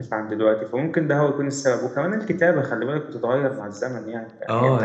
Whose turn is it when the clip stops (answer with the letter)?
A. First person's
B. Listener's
B